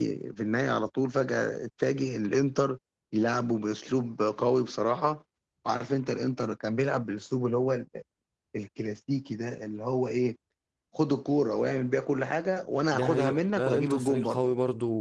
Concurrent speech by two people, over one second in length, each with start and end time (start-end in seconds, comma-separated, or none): 12.9-14.5